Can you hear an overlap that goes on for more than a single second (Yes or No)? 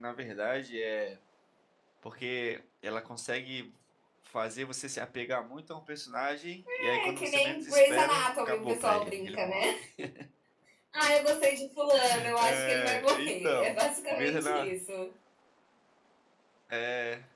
Yes